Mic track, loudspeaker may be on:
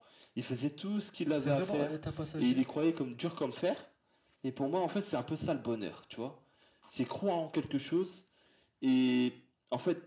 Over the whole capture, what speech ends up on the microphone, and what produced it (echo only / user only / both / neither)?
both